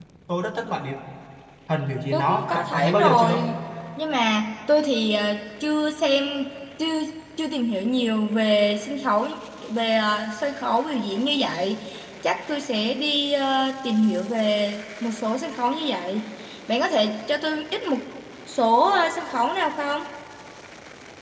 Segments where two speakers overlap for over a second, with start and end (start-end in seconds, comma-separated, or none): 2.1-3.5